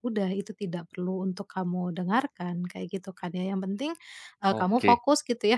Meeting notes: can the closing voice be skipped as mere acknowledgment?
Yes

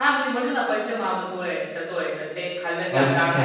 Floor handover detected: Yes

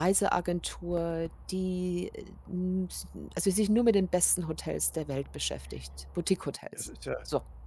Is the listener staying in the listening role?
No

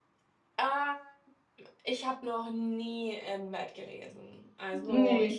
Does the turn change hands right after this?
No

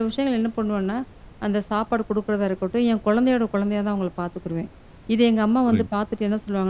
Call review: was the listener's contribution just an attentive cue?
Yes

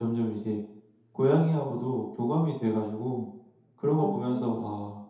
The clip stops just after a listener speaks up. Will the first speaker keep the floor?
Yes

